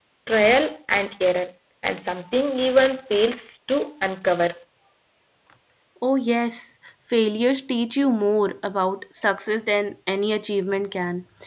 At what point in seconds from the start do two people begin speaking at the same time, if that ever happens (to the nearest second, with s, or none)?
none